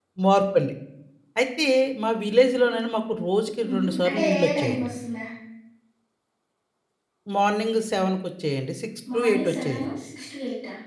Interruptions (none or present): present